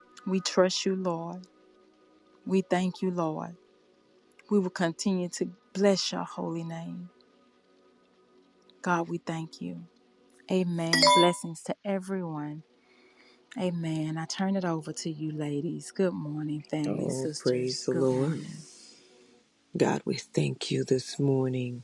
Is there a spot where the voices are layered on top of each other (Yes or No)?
Yes